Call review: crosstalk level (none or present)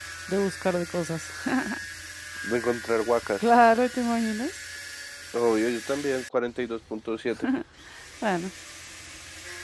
none